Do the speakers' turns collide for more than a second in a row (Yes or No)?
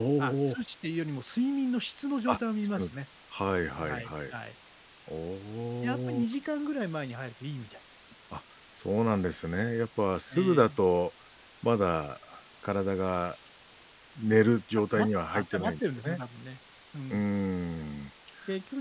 Yes